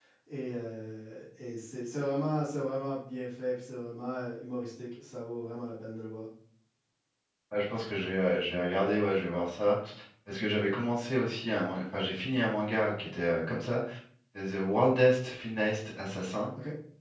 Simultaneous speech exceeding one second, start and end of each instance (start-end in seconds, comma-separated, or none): none